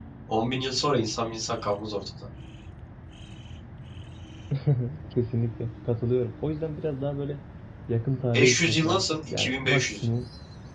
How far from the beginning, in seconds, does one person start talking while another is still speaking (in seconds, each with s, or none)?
8.3 s